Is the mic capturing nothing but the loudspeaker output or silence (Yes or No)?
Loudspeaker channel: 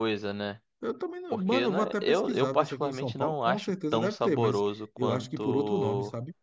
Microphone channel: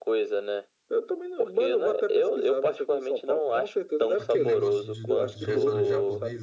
No